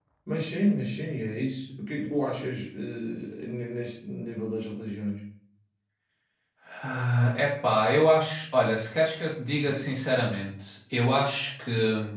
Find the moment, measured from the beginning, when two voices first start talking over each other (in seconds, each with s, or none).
none